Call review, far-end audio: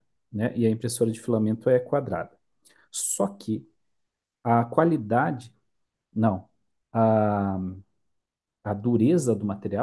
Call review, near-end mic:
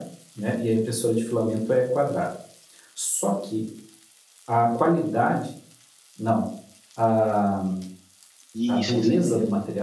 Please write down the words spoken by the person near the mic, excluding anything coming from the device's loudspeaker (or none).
Isso, é isso aí mesmo.